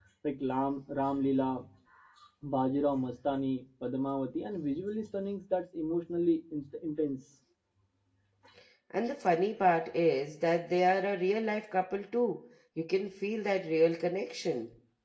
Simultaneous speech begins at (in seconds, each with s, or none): none